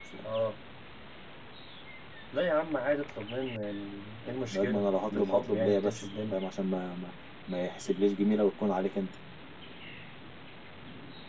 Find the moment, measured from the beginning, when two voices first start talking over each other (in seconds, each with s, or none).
4.5 s